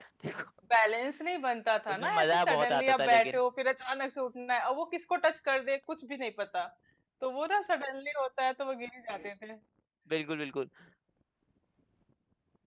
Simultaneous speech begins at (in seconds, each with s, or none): 1.9 s